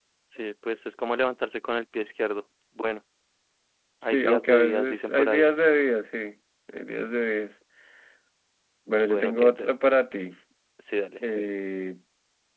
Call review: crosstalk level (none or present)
present